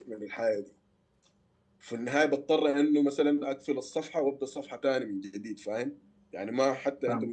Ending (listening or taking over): listening